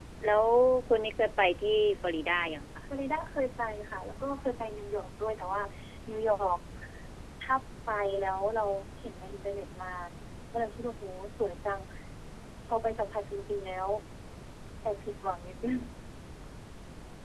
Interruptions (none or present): none